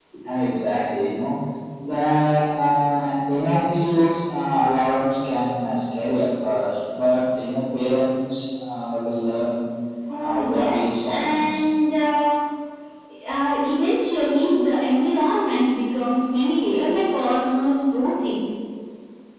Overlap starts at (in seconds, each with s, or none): 10.2 s